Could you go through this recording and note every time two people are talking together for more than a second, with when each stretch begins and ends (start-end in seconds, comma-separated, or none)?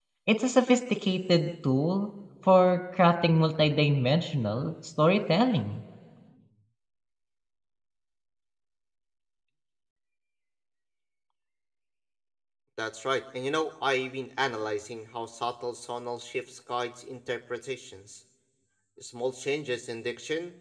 none